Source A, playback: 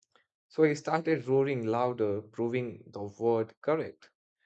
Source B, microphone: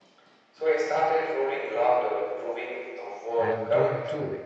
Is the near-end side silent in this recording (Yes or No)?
No